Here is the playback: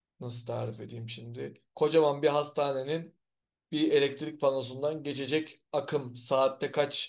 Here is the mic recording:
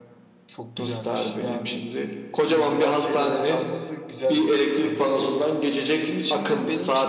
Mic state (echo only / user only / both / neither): both